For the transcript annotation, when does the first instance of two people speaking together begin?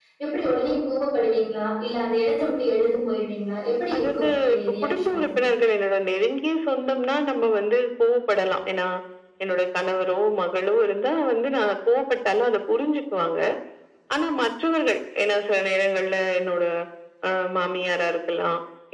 3.9 s

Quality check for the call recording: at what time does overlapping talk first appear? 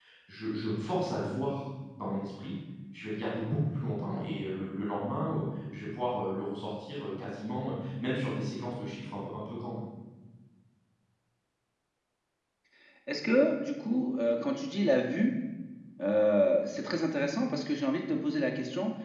none

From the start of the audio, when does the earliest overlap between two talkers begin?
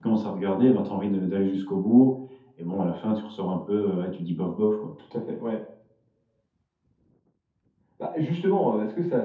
none

